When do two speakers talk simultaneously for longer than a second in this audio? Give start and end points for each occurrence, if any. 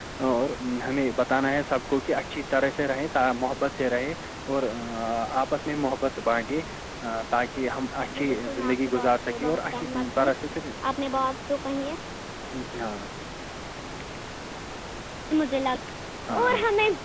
8.1-10.3

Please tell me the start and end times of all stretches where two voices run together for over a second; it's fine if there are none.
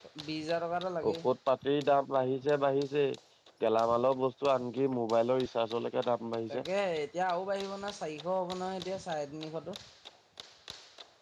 none

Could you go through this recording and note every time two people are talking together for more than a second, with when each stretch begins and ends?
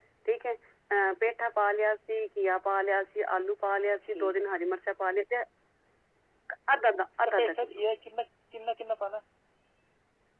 none

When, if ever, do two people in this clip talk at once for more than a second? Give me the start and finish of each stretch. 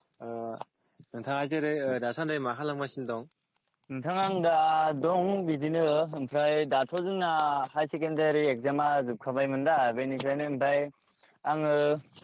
none

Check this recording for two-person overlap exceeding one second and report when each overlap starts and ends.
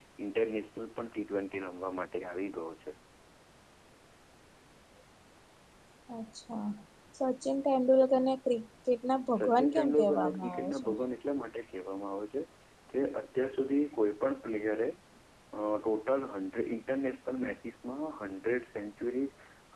9.4-10.9

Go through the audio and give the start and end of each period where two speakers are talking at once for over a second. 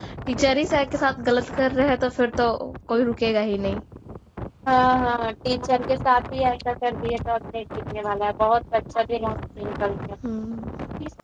none

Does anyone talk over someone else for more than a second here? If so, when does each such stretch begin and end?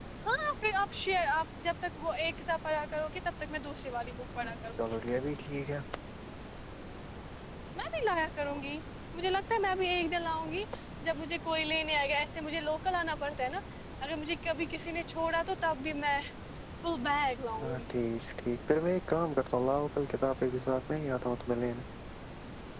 none

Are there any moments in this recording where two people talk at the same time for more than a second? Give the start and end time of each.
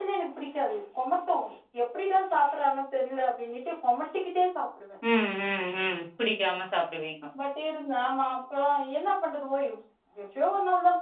none

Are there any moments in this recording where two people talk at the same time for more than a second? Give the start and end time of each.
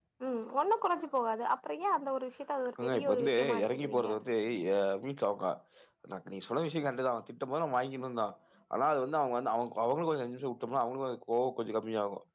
2.8-4.1

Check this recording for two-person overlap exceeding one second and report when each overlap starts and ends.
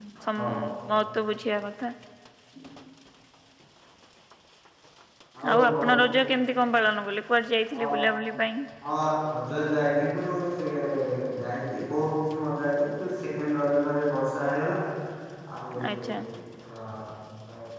none

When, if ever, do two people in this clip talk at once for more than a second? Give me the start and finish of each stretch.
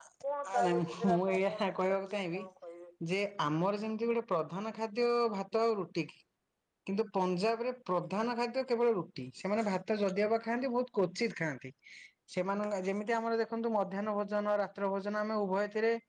0.5-2.4

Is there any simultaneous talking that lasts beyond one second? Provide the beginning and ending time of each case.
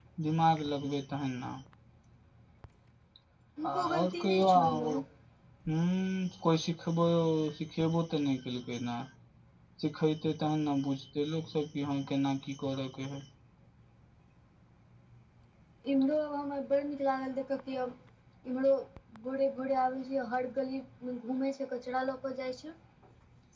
3.7-5.0

